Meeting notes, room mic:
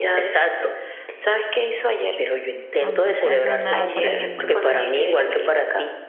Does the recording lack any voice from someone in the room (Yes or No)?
No